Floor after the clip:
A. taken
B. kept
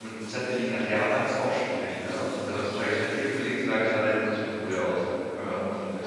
A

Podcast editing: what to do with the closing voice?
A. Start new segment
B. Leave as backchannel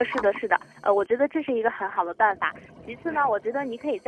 B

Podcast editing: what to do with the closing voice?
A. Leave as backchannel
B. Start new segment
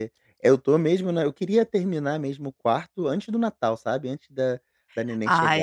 A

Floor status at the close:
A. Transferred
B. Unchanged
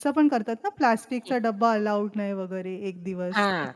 A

